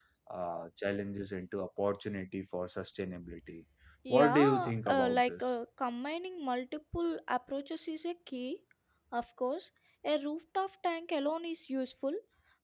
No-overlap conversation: No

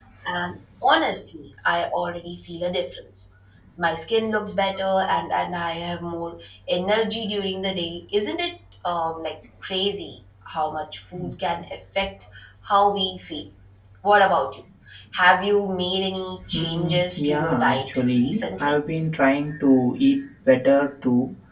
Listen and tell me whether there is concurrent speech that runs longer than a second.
Yes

